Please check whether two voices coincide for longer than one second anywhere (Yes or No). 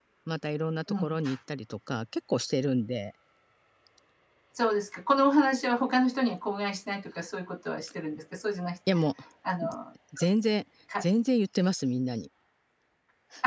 No